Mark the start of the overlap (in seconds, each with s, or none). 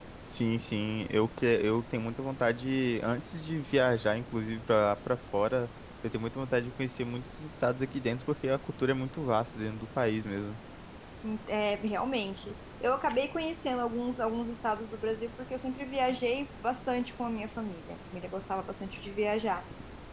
none